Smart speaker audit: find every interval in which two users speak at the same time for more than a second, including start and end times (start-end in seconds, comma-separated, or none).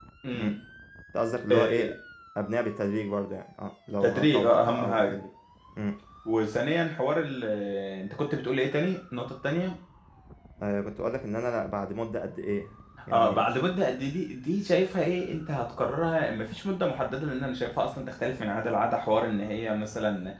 3.9-5.2